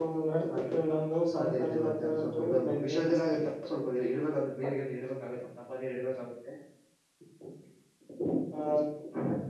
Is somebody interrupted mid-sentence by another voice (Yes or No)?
Yes